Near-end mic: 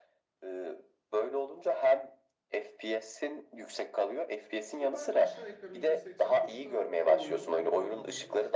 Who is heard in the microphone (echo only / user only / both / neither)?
both